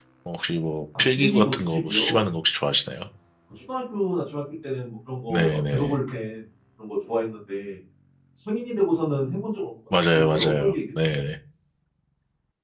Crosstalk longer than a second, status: present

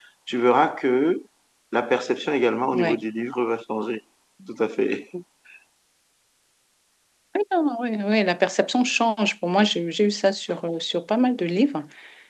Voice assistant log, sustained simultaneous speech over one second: none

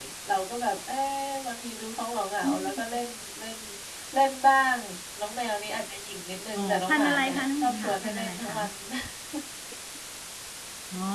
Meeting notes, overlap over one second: present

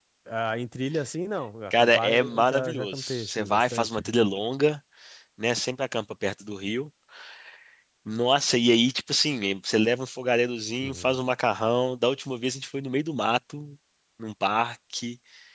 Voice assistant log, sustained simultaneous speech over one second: present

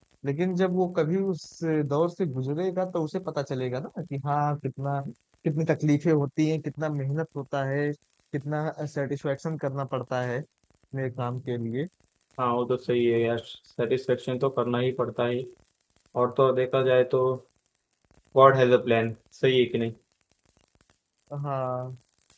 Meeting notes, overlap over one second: none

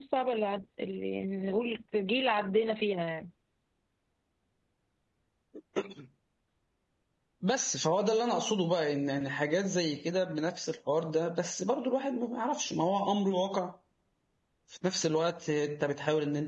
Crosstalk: none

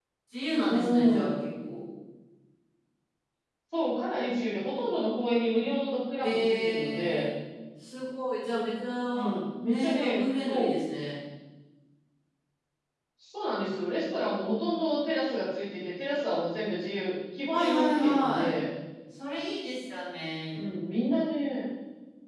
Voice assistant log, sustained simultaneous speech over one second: present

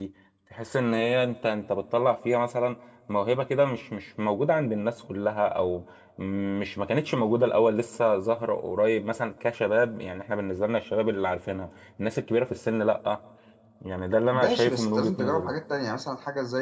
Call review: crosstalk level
present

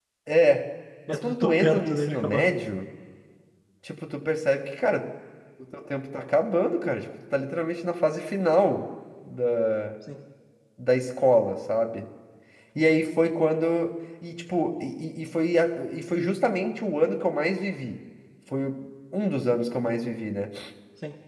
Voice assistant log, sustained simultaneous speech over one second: present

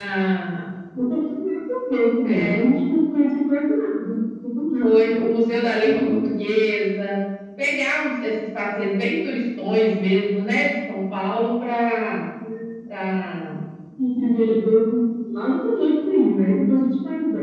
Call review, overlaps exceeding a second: none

